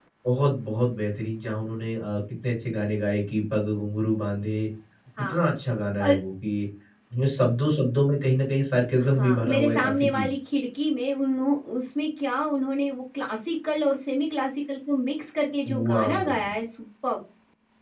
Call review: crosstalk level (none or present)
present